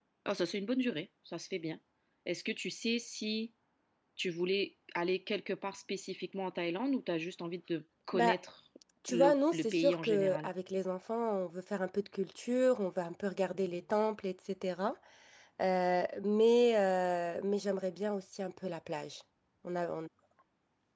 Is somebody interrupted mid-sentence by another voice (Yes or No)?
Yes